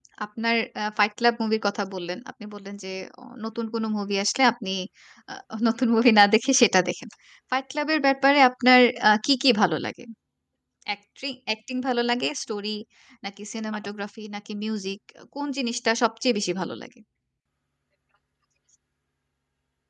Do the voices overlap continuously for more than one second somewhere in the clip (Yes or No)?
No